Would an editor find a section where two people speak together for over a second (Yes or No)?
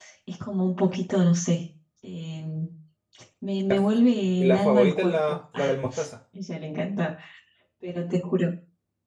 Yes